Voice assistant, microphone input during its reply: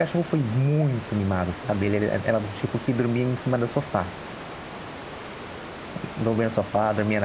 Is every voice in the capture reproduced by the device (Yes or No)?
No